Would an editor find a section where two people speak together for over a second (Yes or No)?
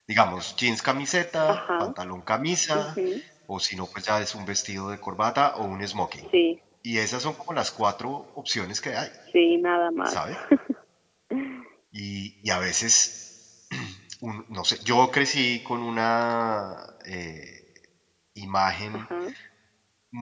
No